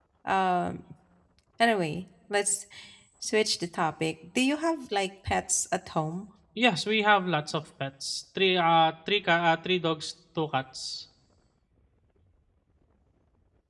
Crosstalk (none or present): none